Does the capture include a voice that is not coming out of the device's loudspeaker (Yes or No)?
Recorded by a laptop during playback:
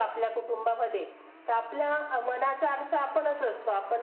No